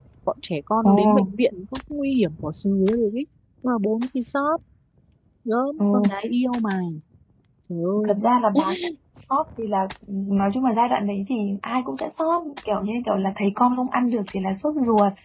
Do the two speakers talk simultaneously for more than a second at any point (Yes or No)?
No